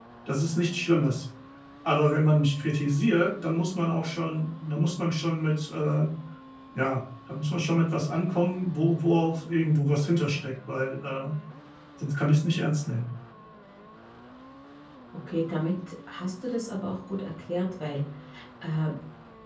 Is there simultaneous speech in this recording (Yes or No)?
No